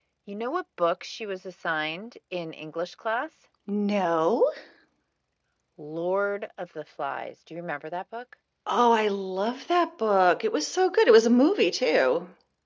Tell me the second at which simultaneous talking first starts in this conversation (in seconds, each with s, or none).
none